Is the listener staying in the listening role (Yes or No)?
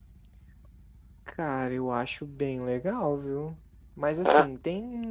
Yes